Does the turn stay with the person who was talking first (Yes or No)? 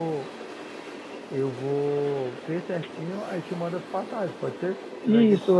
No